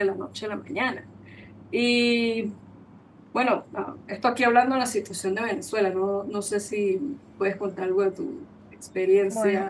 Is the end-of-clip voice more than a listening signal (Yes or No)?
Yes